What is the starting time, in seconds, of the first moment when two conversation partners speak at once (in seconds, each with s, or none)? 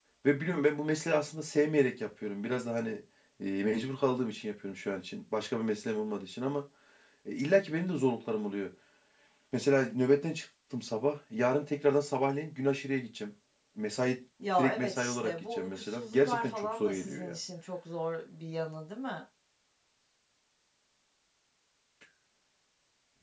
14.6 s